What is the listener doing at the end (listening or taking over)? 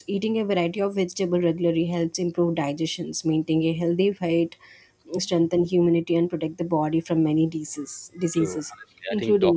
taking over